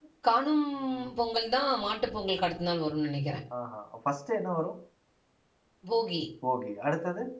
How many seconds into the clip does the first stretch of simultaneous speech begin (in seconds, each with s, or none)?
none